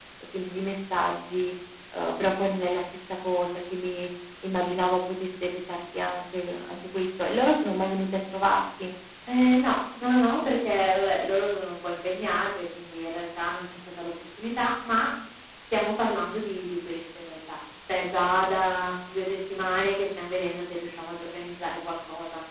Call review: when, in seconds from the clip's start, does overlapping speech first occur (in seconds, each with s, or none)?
none